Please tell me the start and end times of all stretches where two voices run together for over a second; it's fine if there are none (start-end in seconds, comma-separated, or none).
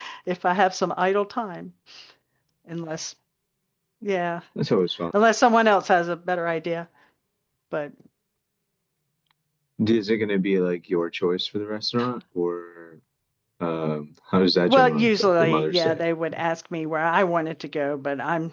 14.7-16.0